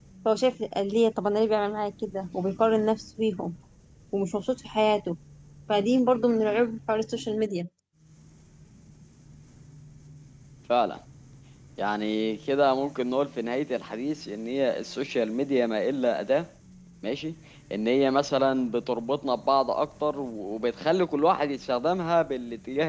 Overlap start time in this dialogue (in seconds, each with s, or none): none